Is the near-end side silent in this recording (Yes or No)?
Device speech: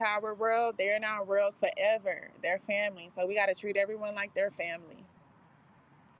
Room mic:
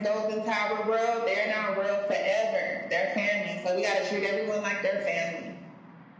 Yes